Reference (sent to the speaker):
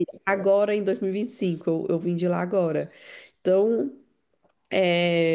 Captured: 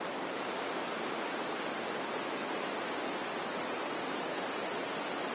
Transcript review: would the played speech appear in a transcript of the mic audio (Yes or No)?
No